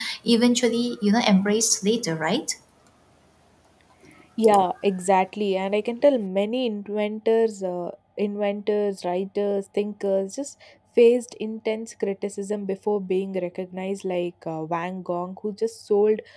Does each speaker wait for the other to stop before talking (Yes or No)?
Yes